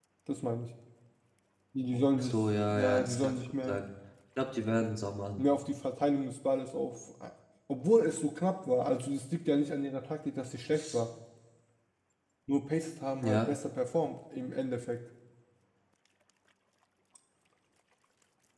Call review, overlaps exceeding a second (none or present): present